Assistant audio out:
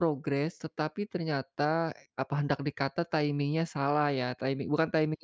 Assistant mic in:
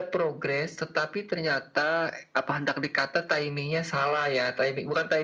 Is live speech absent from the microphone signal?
Yes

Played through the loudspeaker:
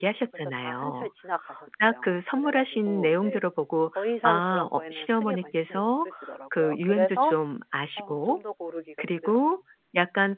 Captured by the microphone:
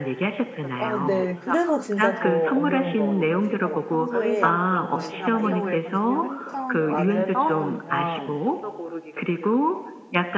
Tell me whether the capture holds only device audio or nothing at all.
No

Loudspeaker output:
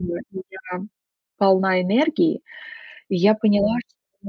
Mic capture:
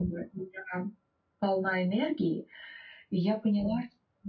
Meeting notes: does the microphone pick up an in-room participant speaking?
No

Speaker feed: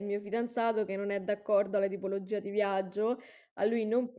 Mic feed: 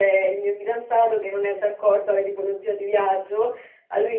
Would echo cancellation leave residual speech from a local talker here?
No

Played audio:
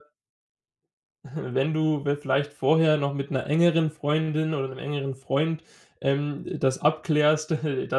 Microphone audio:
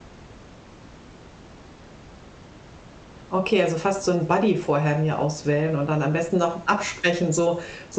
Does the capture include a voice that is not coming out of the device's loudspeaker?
Yes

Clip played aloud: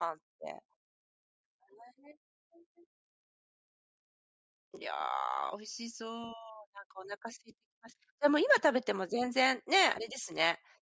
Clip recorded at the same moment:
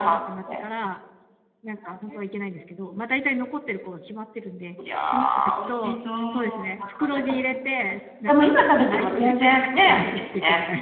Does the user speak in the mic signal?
Yes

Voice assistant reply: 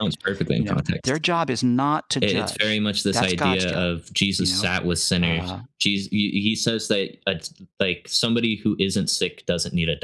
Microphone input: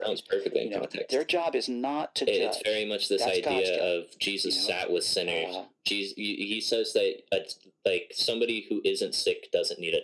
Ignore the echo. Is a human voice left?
No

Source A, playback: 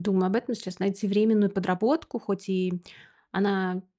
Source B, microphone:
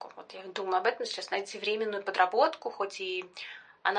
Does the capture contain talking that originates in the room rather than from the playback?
No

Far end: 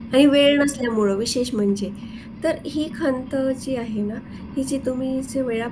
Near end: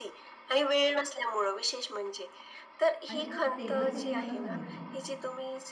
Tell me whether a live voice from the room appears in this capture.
Yes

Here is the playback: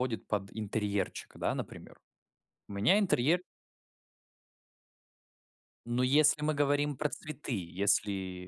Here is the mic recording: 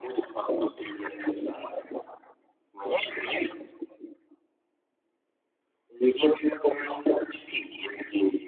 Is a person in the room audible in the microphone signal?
No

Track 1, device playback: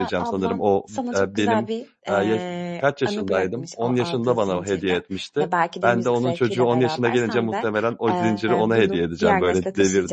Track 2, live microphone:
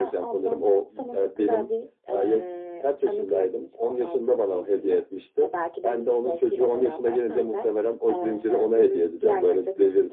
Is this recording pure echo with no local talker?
Yes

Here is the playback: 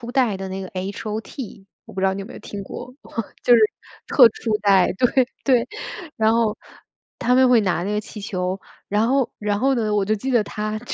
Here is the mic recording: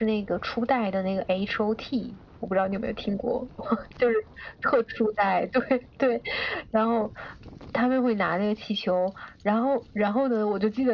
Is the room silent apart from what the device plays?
Yes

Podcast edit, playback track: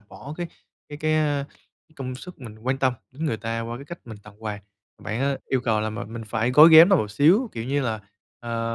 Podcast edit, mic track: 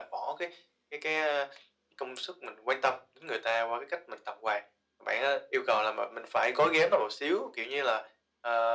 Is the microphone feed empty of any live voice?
Yes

